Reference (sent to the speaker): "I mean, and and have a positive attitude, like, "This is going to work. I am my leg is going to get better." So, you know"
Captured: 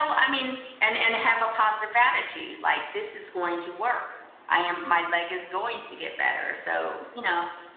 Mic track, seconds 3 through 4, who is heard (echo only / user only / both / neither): echo only